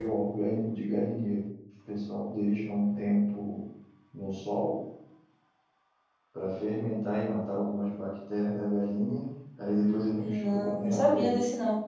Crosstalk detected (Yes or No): Yes